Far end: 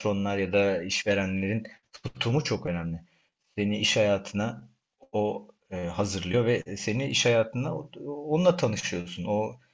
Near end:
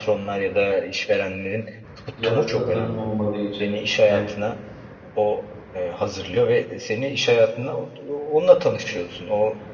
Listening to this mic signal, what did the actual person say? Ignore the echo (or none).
yatkınlığım olmadığı için hem,